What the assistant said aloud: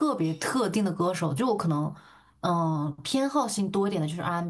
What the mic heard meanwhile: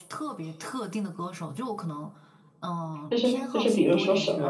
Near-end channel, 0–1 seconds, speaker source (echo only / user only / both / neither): echo only